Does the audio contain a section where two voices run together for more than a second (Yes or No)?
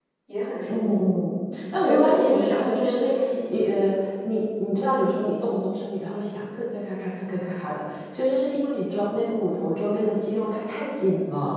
Yes